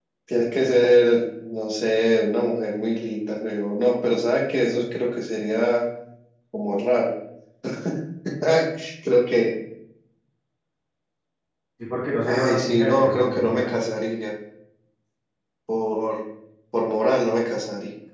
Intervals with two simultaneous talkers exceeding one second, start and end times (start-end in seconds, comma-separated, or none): 12.2-13.7